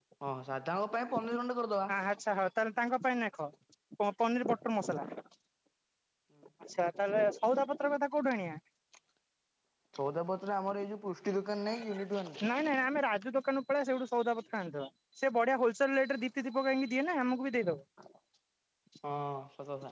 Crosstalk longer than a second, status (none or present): none